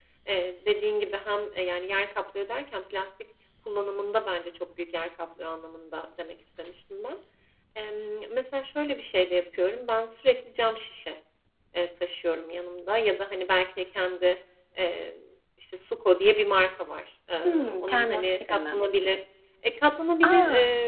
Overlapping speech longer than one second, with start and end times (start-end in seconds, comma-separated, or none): 17.4-18.8